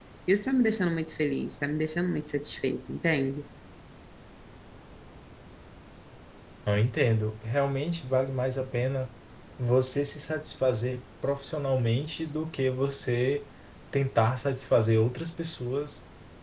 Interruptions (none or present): none